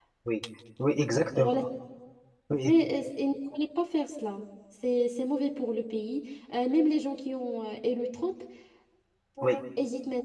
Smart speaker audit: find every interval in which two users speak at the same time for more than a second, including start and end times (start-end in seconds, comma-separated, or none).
none